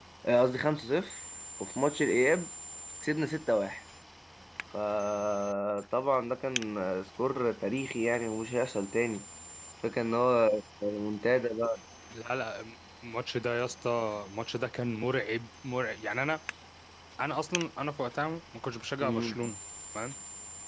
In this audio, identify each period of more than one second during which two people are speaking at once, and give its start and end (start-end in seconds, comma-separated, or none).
none